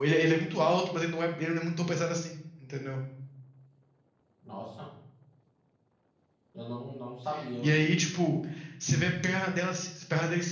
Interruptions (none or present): none